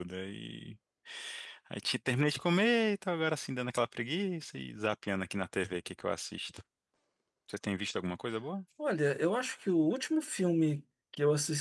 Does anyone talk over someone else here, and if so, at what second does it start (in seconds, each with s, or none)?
none